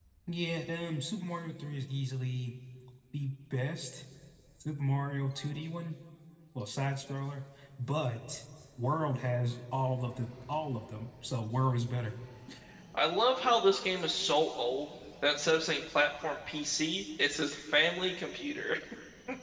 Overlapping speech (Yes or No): No